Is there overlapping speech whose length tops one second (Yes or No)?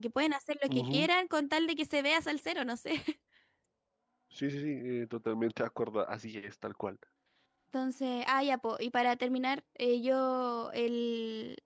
No